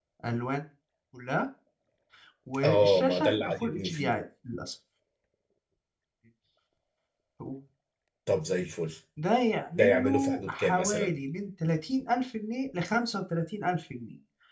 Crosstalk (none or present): present